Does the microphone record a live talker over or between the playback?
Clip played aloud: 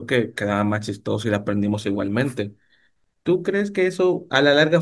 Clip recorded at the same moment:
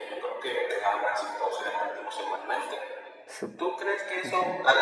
Yes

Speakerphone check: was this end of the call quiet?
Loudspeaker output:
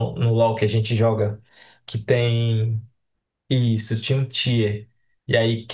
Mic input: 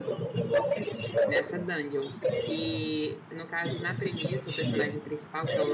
No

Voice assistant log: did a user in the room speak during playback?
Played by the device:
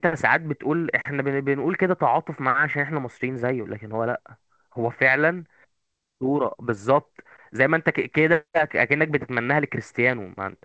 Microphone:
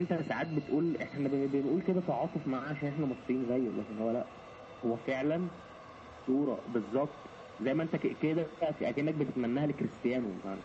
No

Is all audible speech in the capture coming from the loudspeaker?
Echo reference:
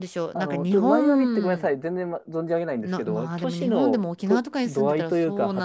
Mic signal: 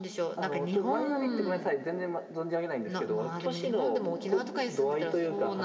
Yes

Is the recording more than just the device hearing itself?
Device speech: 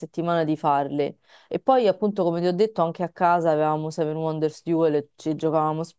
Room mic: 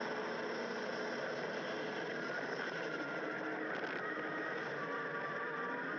No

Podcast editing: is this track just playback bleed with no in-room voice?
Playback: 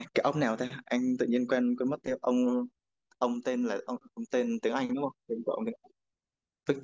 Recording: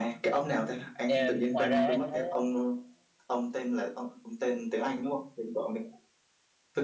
No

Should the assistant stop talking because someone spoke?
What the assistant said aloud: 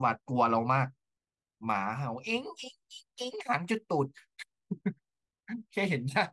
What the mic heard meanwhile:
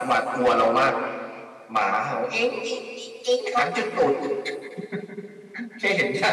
No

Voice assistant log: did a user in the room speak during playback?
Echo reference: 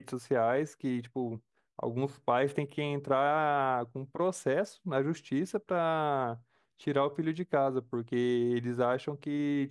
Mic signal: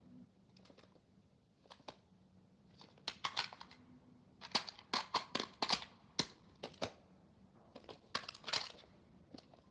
No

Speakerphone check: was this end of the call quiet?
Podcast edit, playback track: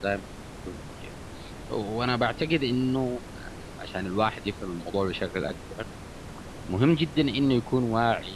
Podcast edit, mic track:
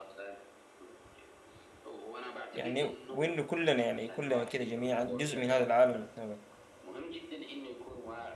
No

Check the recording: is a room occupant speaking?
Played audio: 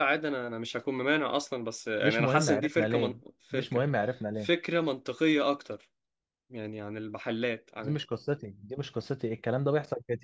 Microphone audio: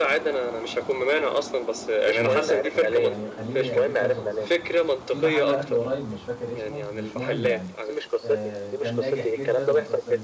Yes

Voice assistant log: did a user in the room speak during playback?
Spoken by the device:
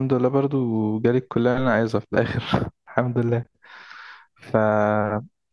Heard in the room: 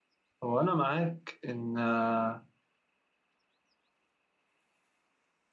Yes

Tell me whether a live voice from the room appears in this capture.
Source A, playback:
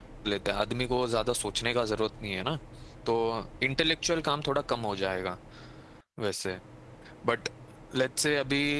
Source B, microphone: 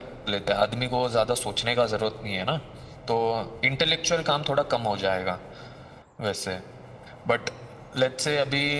No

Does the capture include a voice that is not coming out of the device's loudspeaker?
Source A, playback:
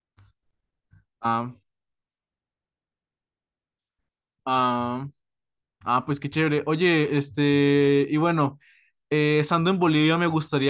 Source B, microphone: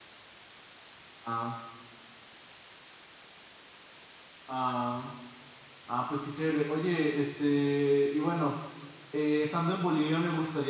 No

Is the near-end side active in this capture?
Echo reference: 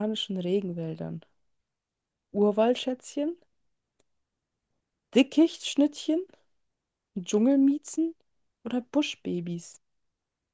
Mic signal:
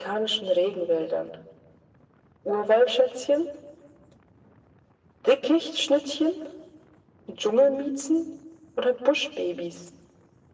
No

